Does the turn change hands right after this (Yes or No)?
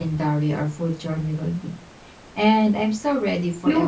Yes